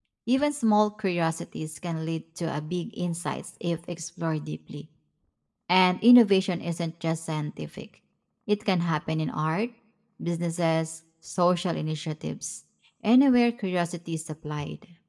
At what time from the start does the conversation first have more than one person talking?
none

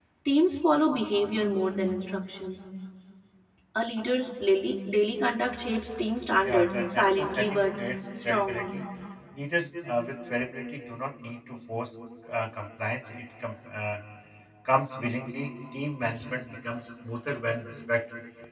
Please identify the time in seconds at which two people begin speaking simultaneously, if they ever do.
6 s

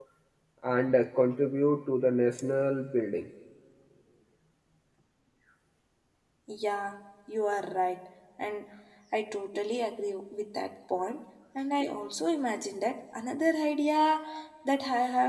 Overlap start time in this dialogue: none

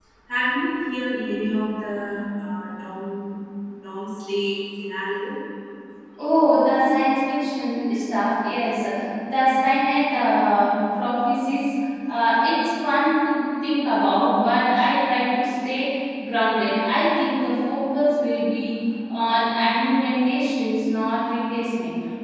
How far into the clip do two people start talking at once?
none

